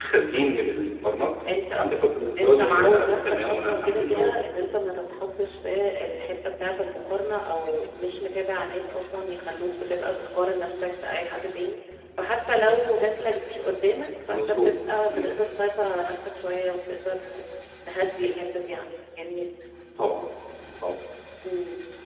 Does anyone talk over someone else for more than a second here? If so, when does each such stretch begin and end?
2.4-4.4

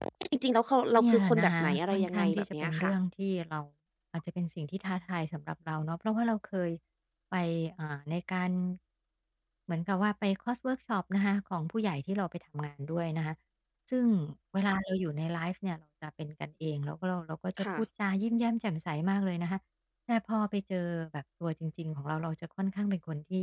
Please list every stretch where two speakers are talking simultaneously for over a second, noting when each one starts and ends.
1.0-2.9

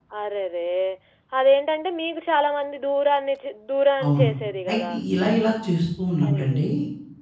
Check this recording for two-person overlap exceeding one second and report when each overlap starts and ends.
none

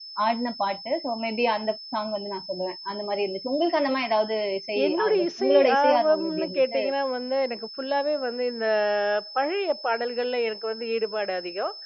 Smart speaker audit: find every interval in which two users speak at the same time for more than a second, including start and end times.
4.9-6.8

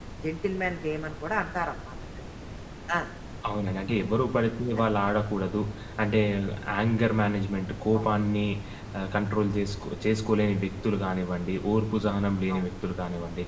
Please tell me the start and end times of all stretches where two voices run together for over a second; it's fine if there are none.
none

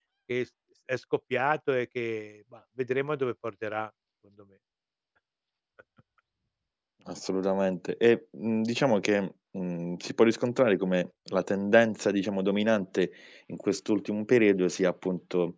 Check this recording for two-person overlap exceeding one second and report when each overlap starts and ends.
none

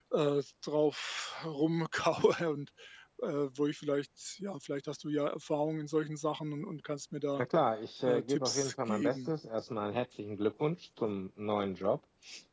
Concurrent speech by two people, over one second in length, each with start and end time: 8.1-9.3

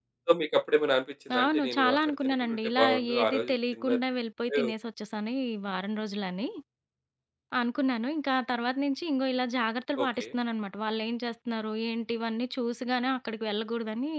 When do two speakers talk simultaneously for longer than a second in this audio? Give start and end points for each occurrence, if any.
1.4-3.9

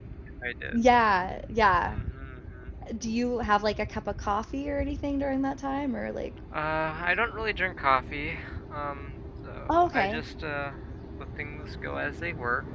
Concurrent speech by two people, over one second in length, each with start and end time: none

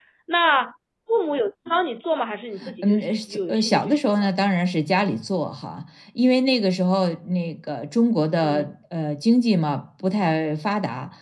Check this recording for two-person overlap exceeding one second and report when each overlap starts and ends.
2.8-4.3

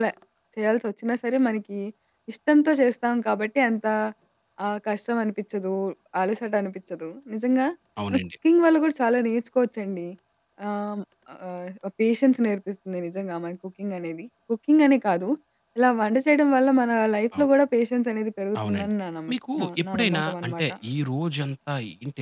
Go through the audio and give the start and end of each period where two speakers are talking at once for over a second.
19.3-20.6

